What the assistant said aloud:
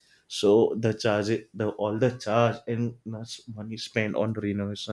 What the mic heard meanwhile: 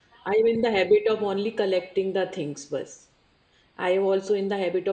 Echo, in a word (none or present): none